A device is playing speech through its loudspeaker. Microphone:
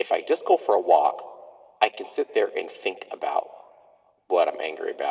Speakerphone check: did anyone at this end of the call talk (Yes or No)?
No